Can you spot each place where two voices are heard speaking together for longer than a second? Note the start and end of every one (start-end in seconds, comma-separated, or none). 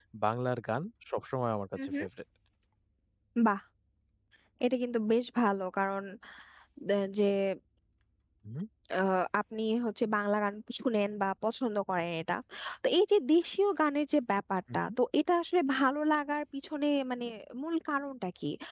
none